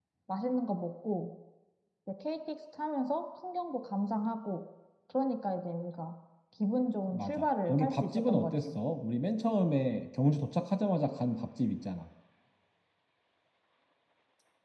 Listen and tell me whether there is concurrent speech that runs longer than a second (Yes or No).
Yes